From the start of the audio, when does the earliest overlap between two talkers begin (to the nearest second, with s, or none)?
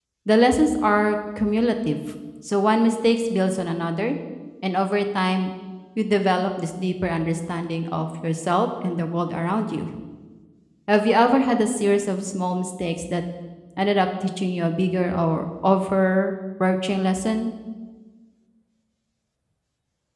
none